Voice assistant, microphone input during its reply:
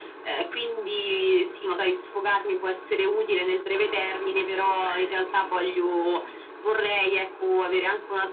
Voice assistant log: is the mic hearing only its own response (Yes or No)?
Yes